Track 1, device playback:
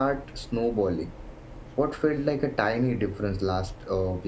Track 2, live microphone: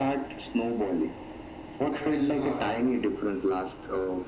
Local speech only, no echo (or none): at the start.